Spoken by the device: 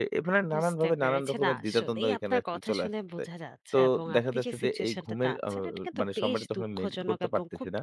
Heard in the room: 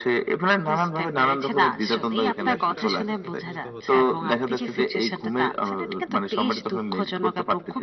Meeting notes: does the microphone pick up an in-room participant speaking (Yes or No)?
Yes